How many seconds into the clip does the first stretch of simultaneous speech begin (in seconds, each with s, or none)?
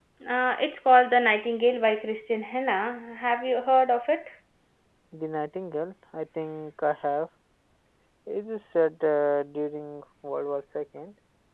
none